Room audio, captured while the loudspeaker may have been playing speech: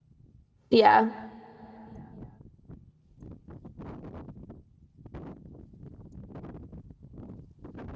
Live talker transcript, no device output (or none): Yeah.